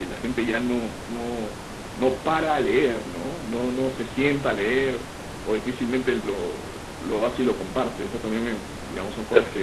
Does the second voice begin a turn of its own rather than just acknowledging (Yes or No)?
No